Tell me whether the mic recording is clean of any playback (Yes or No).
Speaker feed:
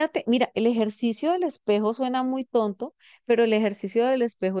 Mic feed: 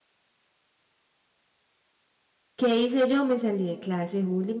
Yes